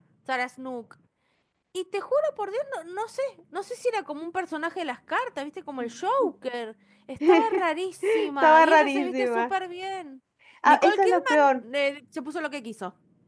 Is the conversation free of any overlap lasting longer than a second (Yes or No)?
No